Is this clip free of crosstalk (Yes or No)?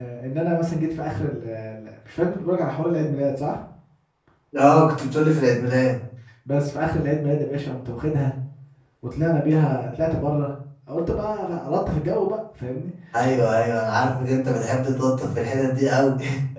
Yes